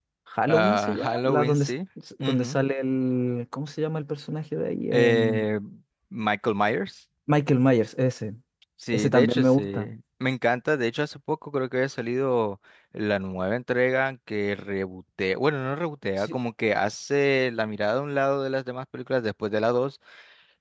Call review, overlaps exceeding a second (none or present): present